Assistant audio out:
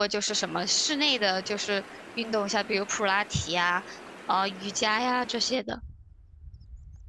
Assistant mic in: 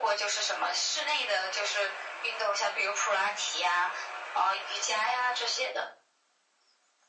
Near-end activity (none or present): none